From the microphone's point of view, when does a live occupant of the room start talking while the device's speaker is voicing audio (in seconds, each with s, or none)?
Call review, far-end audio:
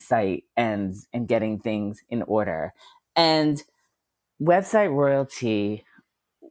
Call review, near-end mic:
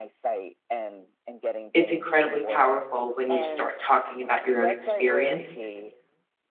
1.7 s